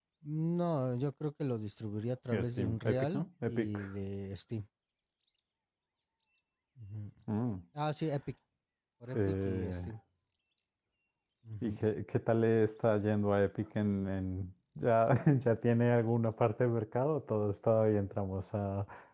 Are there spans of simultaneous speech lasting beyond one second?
Yes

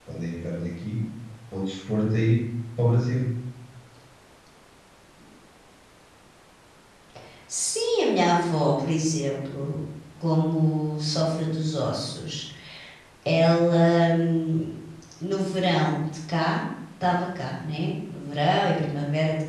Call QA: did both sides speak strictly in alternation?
Yes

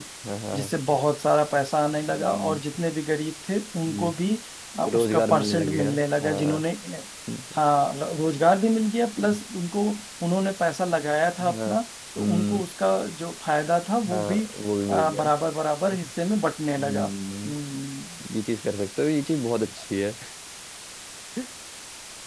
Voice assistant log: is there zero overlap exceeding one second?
No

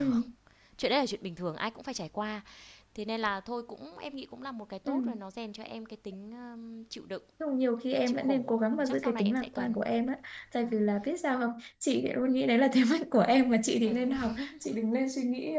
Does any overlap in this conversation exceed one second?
Yes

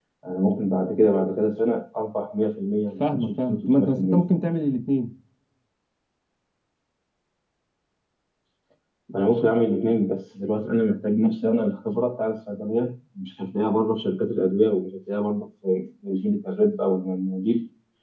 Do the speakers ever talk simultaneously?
Yes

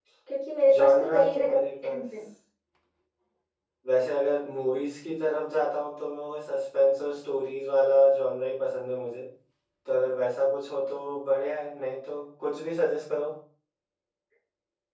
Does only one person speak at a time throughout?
No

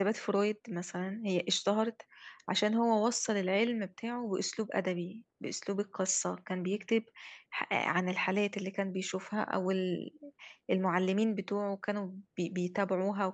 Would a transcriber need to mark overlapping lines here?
No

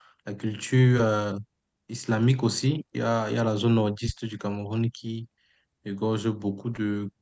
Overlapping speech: No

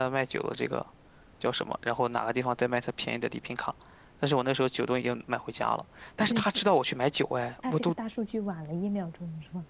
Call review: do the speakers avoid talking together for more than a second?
Yes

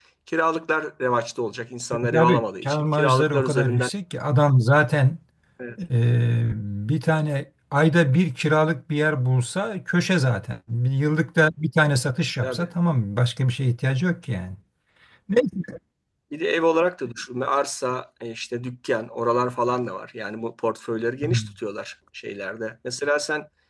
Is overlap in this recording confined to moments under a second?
No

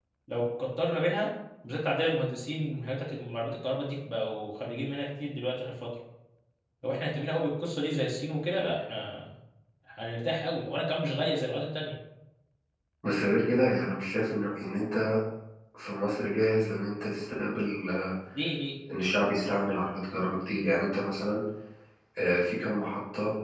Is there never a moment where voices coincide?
Yes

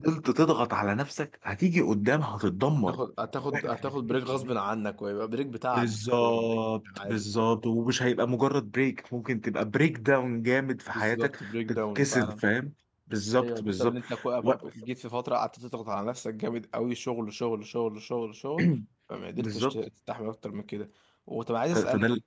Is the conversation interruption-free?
No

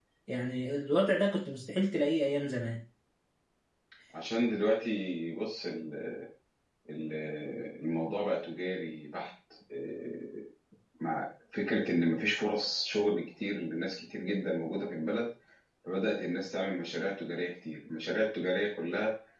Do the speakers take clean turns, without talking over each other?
Yes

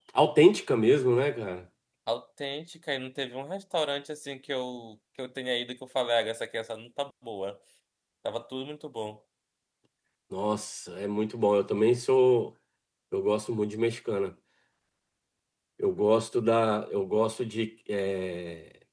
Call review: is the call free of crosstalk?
Yes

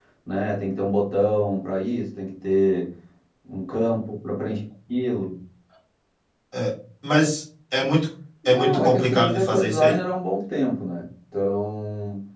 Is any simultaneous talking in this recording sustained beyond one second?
Yes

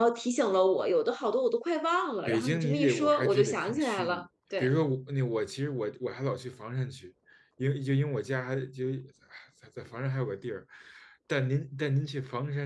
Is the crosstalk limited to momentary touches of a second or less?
No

